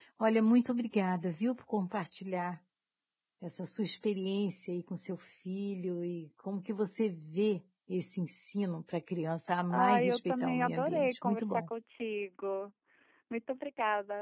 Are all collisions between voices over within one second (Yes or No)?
No